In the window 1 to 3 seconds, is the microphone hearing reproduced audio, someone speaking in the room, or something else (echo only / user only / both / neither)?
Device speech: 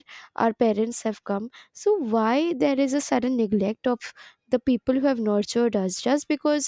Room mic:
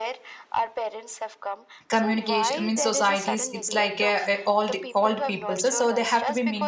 both